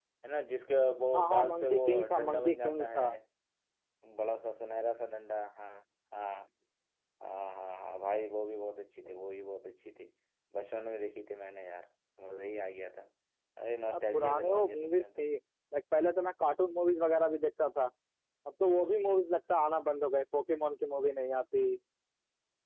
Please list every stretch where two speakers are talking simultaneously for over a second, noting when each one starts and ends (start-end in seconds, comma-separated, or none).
1.1-3.0, 13.9-15.3